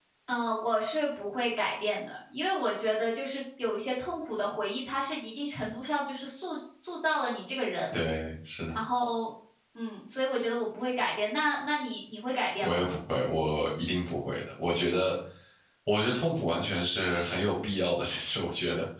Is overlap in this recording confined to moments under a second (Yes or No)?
Yes